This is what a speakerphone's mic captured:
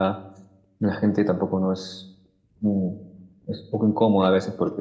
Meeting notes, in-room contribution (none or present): present